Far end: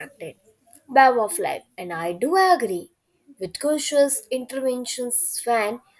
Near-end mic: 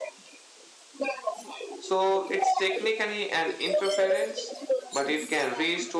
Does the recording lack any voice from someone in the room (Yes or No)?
No